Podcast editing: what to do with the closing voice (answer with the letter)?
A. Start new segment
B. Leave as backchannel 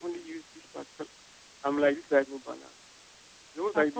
B